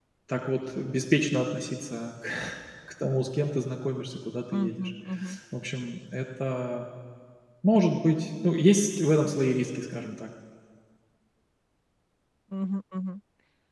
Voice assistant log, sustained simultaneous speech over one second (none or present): none